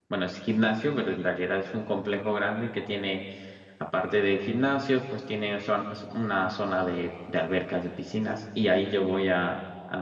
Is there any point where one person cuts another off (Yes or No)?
No